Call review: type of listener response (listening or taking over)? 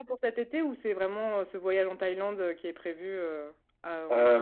taking over